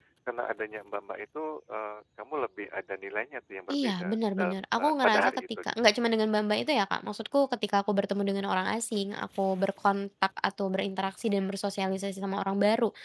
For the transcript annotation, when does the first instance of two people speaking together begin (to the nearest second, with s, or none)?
4 s